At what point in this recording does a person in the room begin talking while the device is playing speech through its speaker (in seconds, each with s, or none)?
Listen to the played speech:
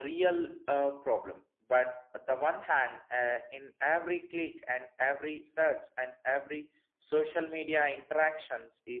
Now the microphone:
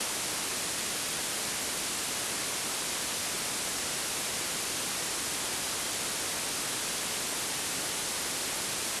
none